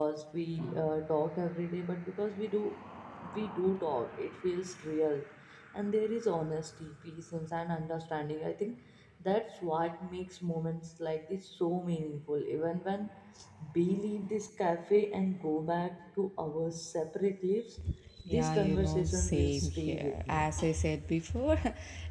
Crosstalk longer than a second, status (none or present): present